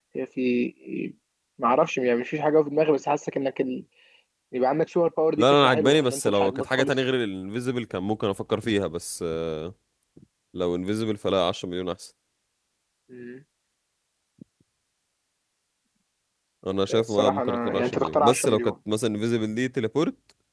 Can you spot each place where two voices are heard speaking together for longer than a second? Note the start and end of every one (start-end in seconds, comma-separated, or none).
5.4-6.9, 16.9-18.7